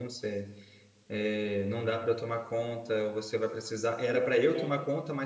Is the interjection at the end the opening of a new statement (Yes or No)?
No